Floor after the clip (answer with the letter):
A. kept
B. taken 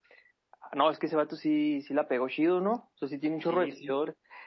A